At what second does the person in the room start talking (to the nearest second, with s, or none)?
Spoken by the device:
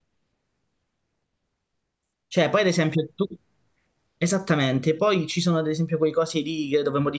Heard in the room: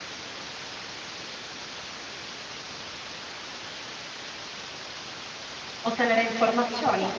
6 s